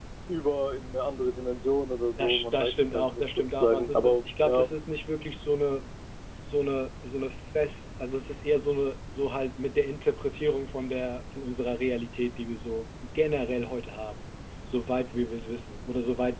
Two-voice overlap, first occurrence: 2.2 s

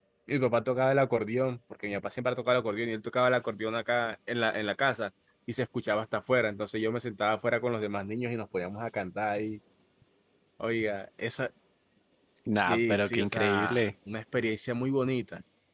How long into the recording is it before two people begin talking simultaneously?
12.5 s

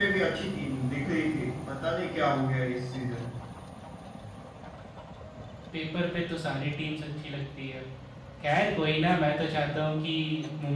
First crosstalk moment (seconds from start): none

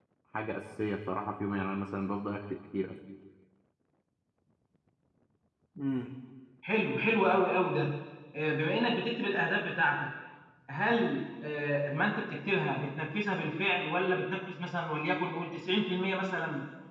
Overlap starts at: none

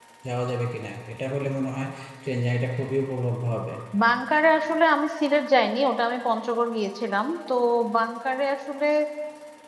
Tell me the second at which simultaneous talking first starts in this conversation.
none

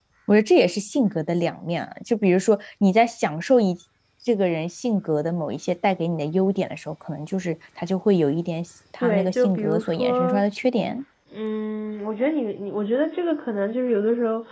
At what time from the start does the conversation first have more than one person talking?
9.0 s

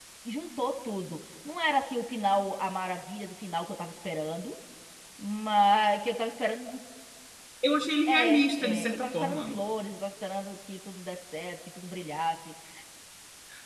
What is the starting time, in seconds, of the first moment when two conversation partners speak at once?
8.1 s

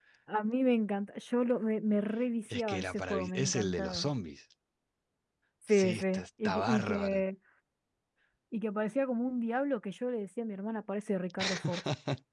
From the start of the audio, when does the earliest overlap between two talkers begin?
2.4 s

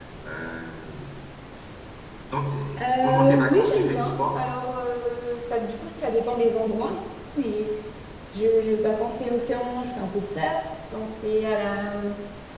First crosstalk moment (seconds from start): 3.0 s

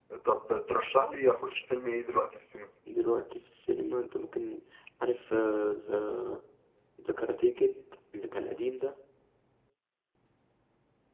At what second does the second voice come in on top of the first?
none

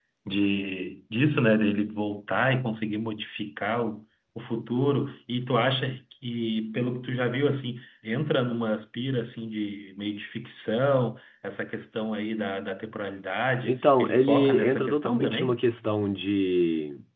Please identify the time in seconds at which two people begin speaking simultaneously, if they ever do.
13.6 s

